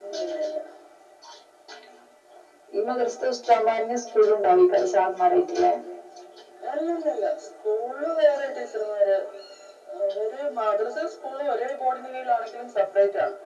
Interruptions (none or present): none